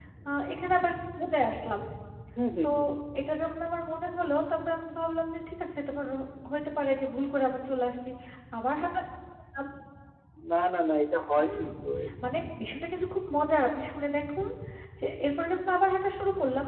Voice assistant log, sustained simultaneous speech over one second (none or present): none